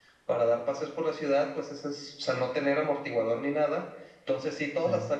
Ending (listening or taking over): listening